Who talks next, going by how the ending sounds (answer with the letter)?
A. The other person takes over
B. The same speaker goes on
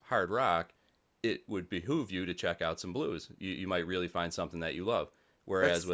B